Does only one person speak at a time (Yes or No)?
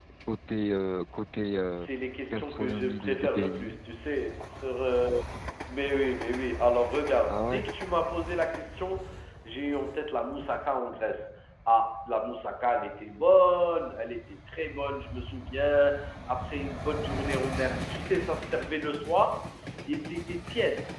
No